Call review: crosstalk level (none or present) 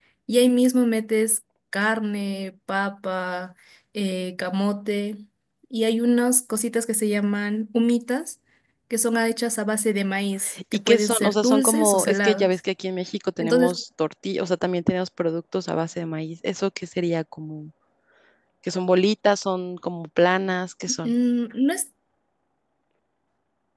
present